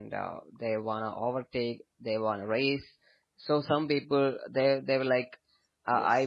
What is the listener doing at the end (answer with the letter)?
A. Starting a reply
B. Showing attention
B